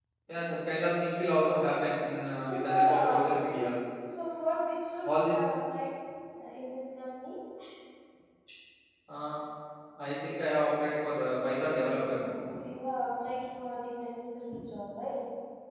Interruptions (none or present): present